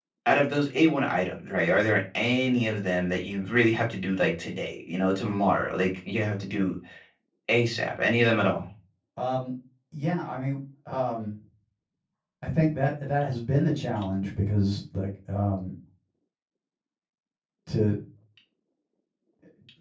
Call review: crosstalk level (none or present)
none